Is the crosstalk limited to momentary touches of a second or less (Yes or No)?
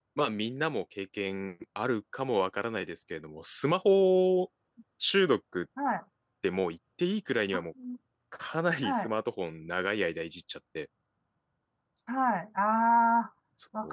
Yes